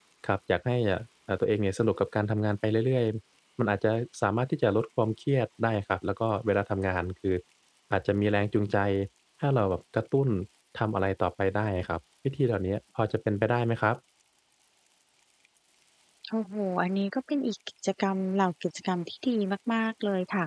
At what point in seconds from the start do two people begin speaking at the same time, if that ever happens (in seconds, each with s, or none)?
none